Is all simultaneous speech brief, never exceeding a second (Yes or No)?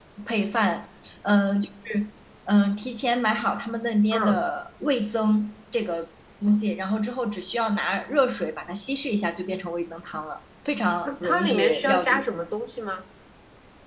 No